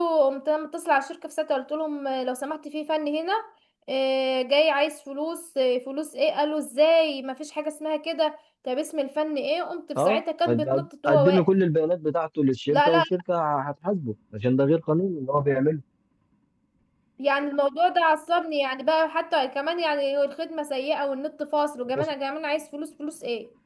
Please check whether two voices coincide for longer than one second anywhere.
Yes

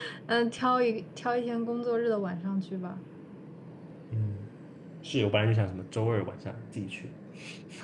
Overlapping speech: No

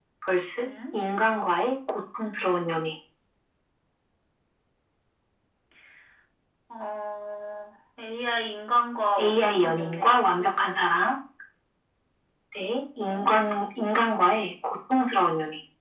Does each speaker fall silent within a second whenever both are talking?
No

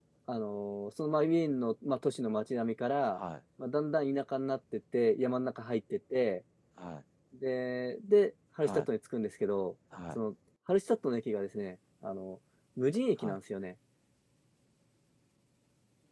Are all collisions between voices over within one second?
Yes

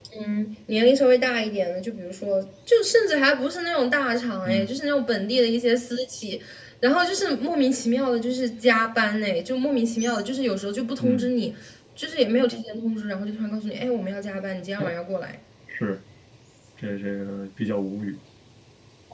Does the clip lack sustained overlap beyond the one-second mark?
Yes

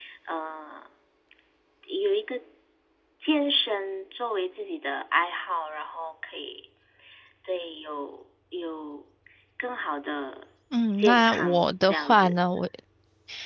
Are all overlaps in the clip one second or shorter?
No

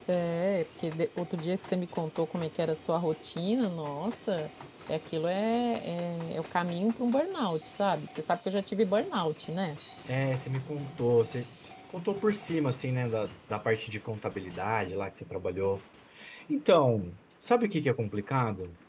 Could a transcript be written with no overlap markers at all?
Yes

